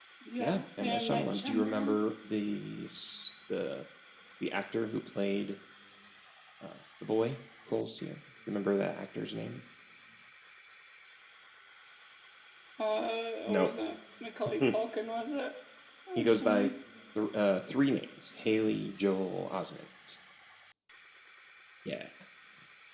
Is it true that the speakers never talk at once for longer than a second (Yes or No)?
No